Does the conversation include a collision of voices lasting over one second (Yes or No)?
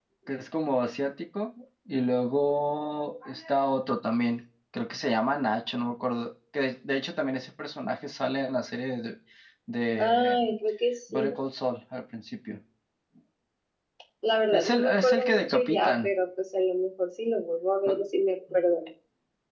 Yes